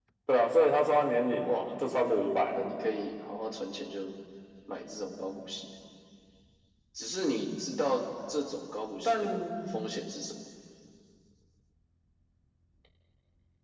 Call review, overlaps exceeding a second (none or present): none